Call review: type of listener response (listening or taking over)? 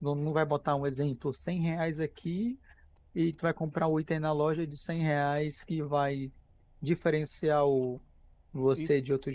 taking over